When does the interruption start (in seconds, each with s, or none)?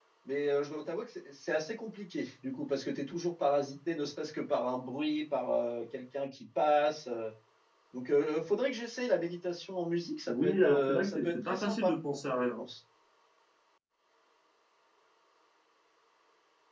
10.3 s